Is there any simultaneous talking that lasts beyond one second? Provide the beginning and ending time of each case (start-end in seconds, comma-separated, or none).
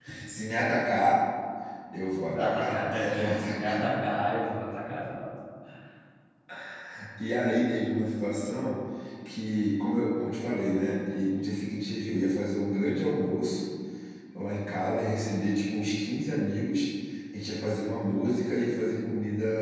2.4-3.8